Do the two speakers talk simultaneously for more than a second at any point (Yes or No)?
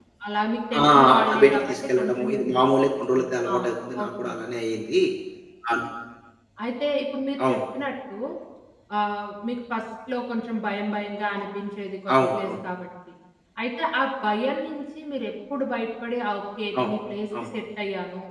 Yes